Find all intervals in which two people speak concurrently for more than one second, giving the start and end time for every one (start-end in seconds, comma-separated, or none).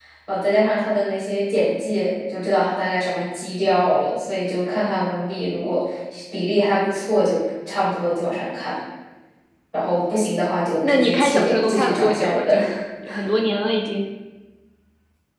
10.8-12.6